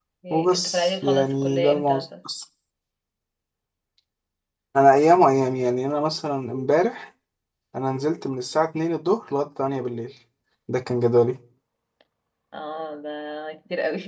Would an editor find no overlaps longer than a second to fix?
No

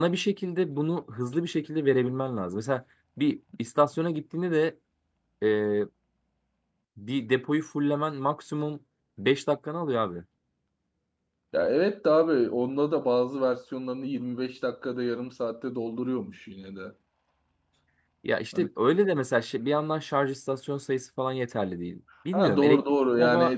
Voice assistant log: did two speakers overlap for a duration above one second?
Yes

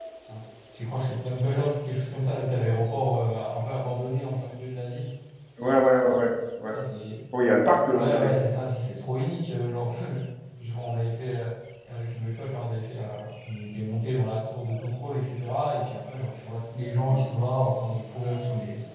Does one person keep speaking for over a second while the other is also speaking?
No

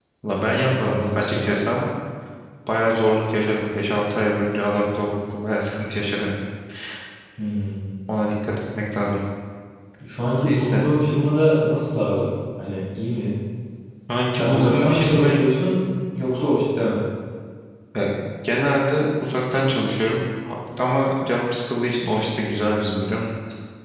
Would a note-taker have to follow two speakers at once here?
Yes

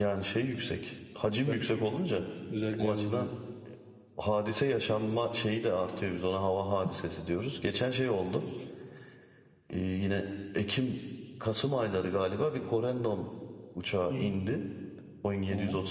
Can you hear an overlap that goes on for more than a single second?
No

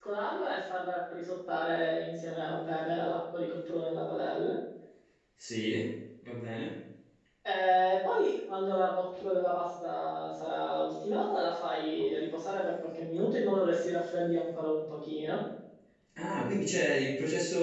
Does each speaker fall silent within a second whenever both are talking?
Yes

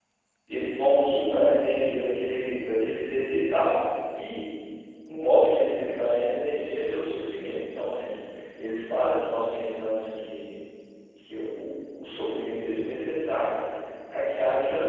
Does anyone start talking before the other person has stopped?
No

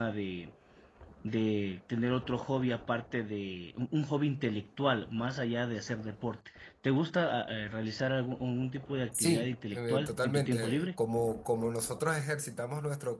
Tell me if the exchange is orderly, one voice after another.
No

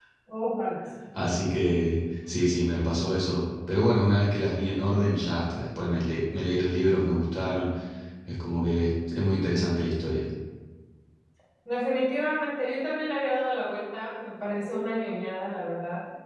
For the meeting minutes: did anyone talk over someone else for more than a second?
No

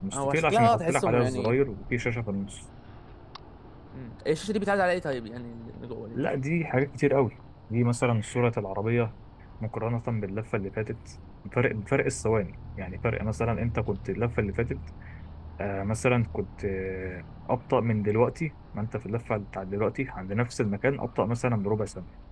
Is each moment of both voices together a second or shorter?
No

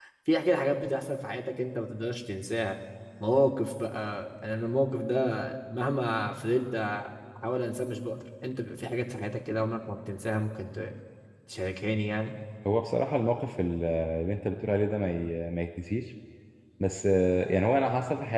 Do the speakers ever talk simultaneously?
No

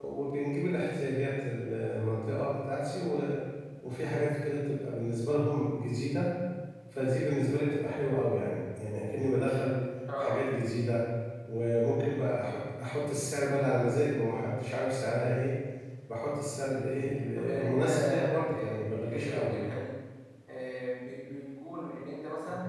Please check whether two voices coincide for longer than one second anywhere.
Yes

